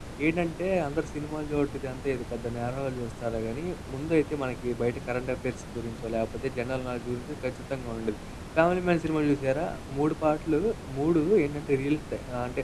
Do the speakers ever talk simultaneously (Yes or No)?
No